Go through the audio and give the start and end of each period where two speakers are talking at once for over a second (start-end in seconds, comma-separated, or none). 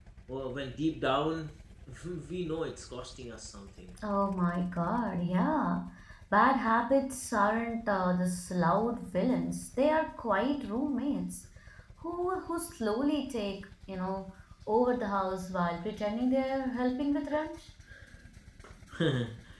none